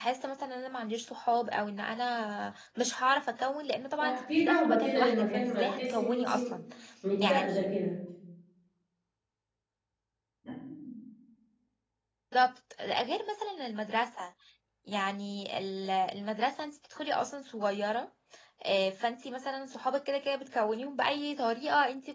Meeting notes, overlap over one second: present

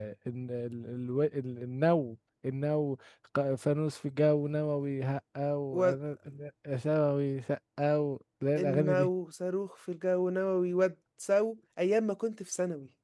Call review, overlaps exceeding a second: none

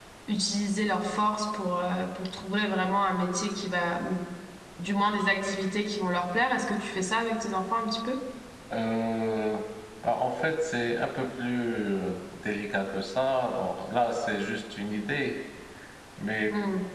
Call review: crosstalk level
none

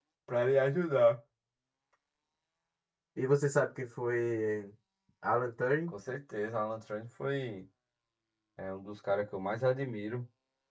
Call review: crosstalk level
none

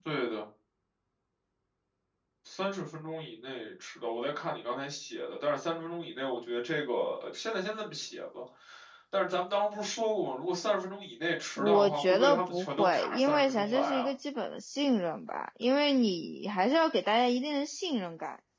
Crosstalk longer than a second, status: present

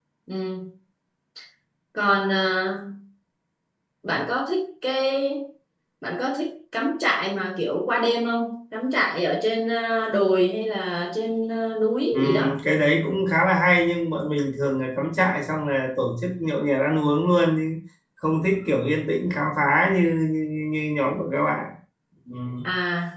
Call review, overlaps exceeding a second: none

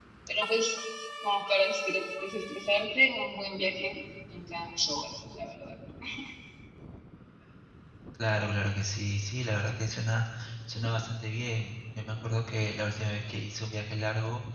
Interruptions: none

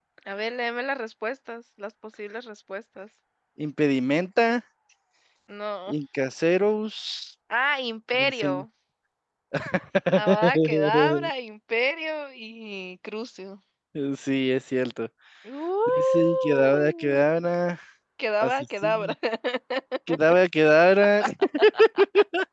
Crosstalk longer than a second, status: present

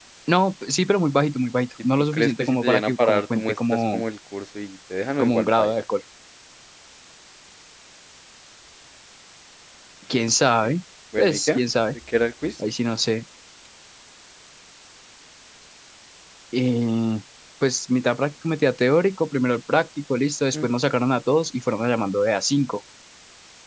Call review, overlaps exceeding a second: present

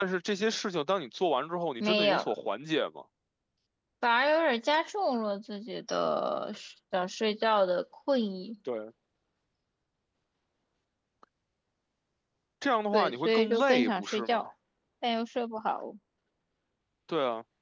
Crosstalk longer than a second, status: present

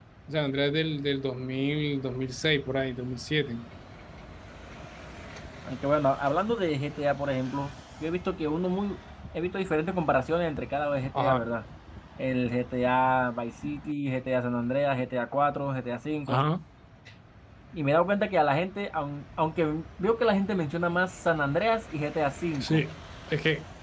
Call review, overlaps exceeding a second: none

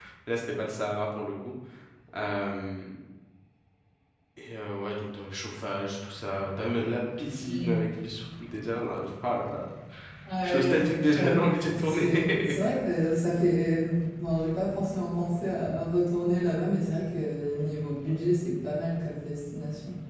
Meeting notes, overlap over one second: present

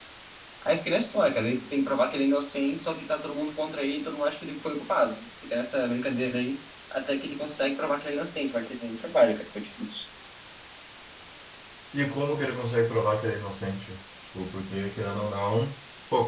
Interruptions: none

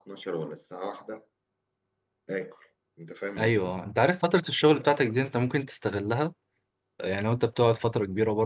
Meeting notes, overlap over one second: none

